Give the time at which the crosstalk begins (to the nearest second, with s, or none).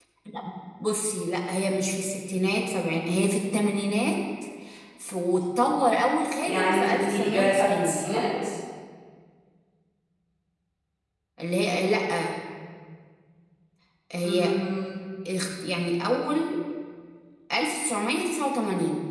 6 s